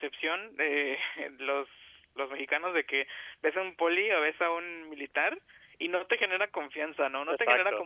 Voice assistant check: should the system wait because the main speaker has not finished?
No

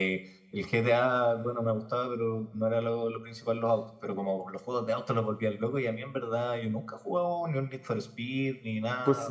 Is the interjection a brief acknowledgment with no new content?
No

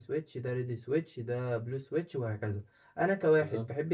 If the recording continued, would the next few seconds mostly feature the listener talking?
No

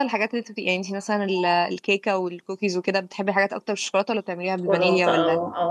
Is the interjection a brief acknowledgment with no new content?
No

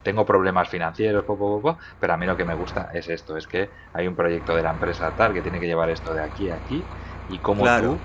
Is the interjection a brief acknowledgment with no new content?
Yes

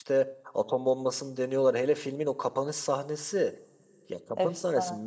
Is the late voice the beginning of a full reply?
No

